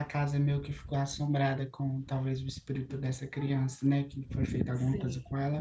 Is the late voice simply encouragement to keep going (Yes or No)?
No